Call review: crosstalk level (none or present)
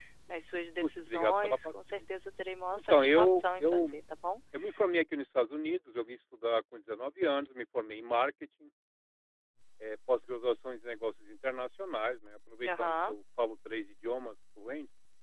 present